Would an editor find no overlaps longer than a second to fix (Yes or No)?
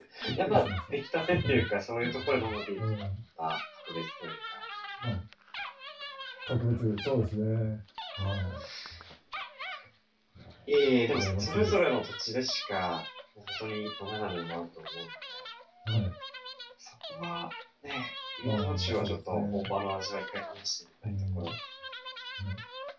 No